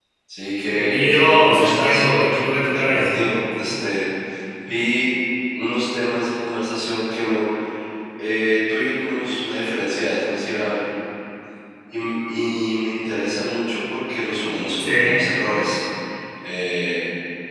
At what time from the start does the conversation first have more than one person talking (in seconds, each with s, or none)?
0.7 s